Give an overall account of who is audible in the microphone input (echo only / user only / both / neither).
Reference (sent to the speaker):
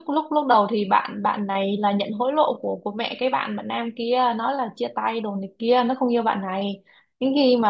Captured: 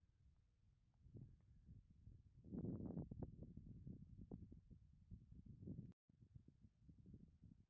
neither